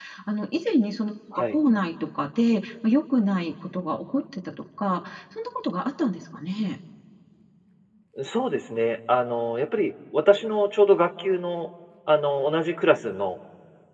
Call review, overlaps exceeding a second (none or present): none